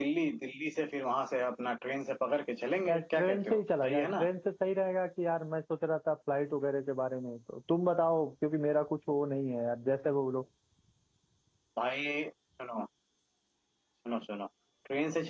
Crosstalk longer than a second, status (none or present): present